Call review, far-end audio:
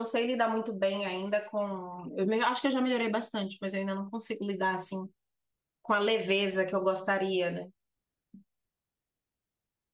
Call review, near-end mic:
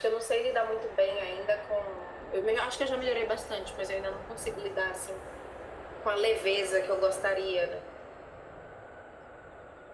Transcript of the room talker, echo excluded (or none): none